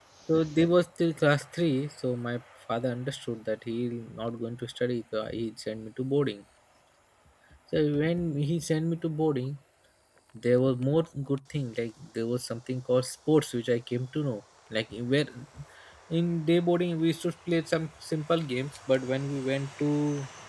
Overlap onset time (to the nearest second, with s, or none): none